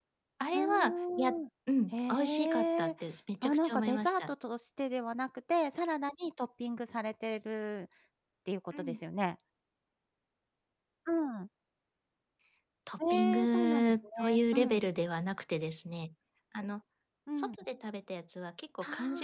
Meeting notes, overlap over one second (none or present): present